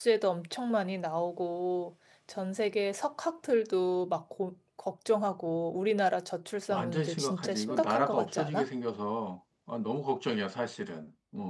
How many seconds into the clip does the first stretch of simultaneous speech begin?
6.7 s

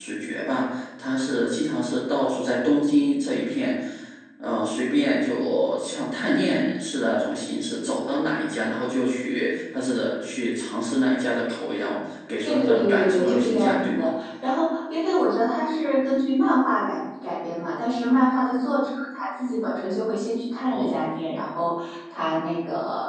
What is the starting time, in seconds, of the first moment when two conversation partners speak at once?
12.4 s

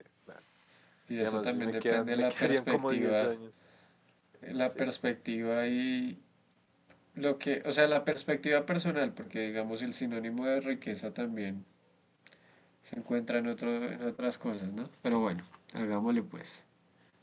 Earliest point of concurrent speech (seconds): 1.2 s

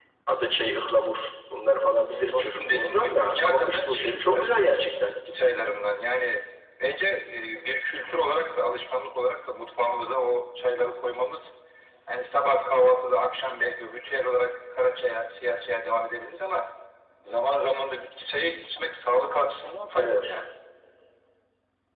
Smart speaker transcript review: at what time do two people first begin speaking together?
2.3 s

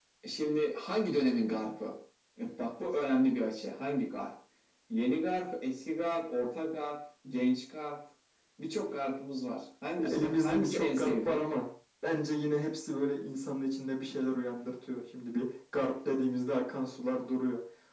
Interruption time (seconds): 10.0 s

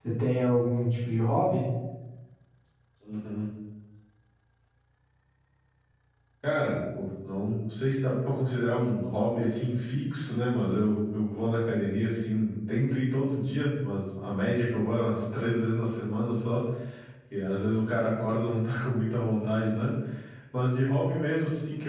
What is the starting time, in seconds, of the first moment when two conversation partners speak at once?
none

